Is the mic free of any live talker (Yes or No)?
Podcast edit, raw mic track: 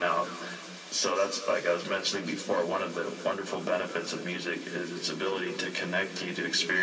Yes